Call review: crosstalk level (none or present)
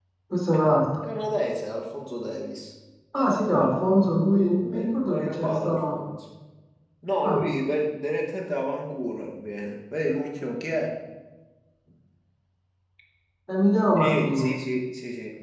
present